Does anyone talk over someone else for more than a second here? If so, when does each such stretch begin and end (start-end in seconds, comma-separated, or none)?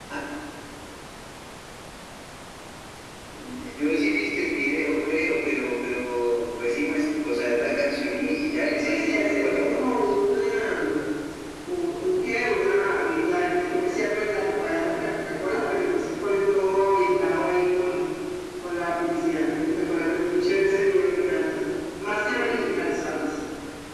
8.8-10.1